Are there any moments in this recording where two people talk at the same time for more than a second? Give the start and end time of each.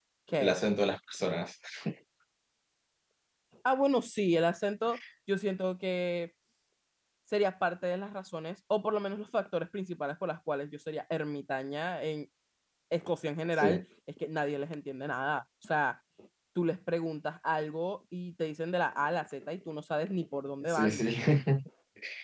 none

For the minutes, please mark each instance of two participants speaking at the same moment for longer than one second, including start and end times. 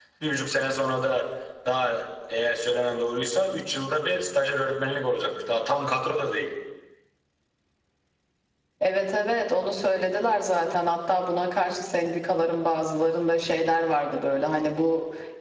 none

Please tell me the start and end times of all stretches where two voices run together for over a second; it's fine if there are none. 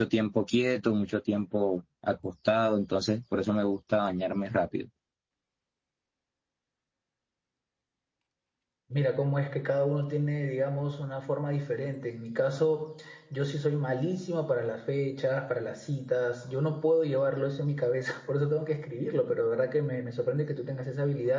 none

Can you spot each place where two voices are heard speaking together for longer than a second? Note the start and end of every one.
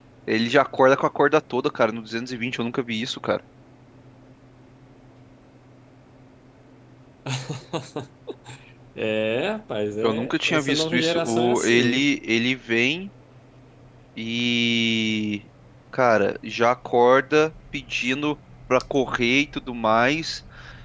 10.0-12.1

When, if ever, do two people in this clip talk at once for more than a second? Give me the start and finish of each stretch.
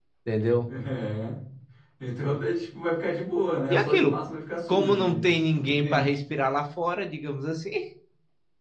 4.7-6.1

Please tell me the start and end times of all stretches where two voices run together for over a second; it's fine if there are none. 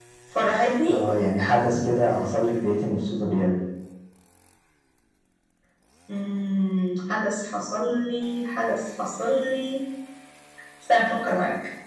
none

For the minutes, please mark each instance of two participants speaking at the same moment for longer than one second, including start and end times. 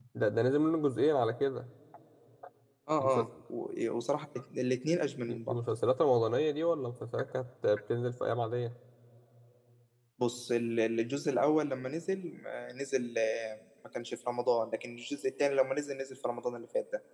none

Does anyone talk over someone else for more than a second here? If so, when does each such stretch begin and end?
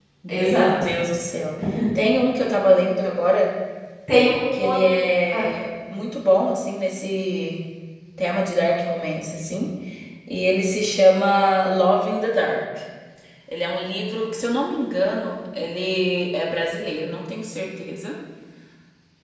none

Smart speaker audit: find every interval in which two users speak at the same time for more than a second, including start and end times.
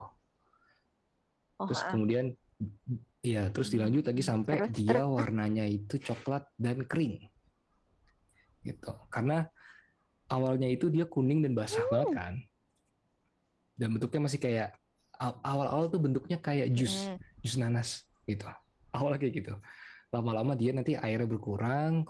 3.6-5.0

